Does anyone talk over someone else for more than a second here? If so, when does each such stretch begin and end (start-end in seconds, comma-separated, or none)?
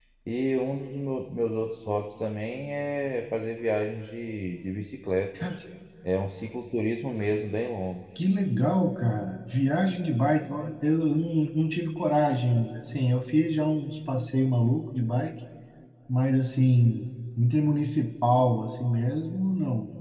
none